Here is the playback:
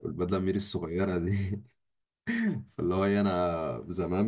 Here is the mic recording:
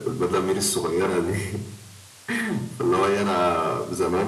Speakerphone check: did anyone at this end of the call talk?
No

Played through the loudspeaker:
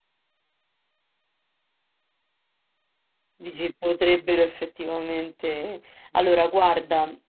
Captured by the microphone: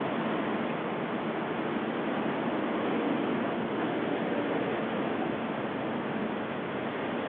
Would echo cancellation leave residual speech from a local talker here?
No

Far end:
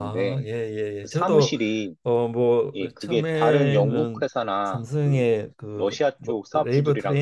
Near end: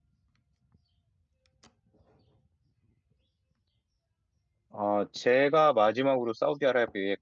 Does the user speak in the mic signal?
Yes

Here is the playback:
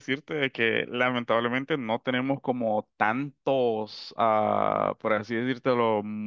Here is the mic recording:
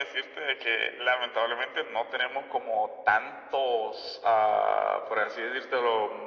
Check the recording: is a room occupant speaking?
No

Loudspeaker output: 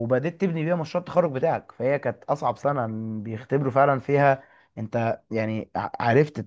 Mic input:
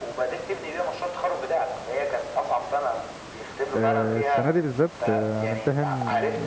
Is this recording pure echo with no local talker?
No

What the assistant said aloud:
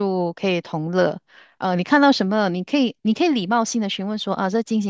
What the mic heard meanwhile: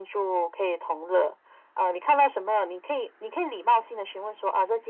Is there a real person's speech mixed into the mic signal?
No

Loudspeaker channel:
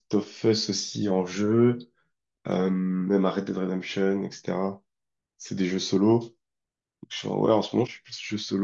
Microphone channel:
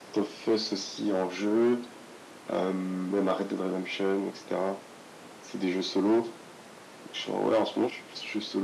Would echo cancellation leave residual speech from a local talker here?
No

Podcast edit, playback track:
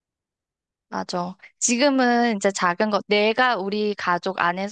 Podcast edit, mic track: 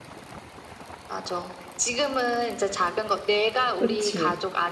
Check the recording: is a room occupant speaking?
Yes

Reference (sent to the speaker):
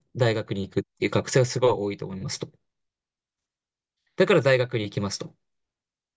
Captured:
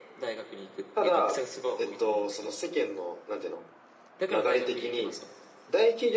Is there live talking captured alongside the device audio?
Yes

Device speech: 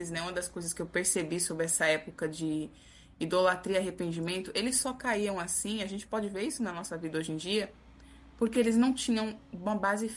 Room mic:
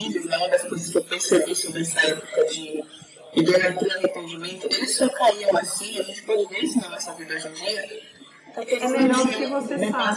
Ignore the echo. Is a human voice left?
Yes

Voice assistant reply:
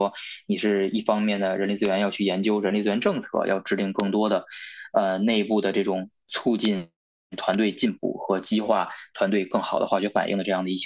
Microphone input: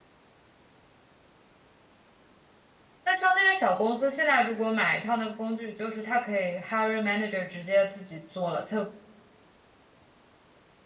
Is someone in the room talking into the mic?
Yes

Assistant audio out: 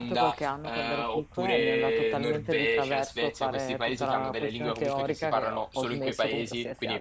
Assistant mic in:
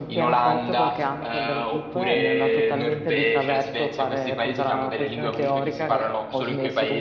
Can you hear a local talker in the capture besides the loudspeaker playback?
No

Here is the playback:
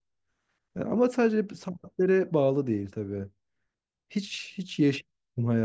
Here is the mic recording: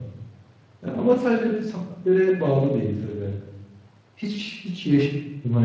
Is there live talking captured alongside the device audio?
No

